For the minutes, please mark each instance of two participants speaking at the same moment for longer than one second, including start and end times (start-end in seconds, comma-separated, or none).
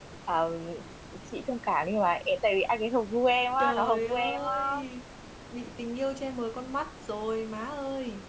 3.6-4.8